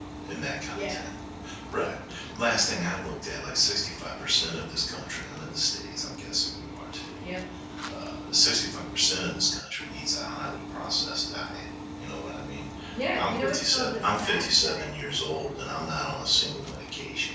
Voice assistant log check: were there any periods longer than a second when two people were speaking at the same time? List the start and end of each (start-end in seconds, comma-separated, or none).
13.2-14.9